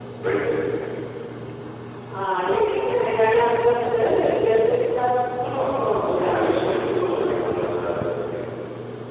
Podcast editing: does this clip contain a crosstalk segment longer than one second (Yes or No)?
Yes